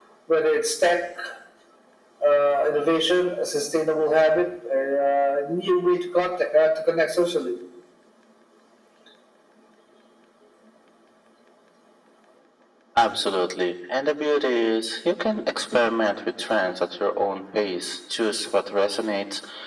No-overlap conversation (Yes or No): Yes